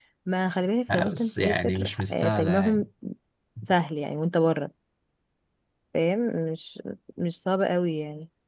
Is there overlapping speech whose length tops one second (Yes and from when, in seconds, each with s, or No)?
Yes, from 0.9 s